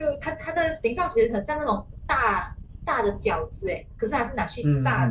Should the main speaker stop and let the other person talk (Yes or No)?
Yes